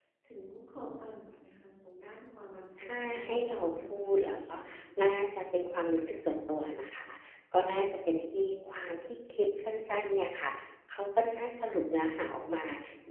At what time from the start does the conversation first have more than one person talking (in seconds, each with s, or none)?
2.8 s